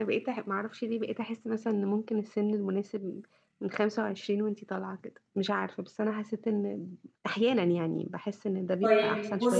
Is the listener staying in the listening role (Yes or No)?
No